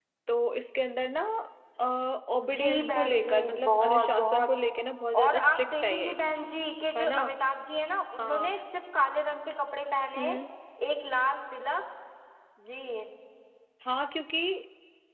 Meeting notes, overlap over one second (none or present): present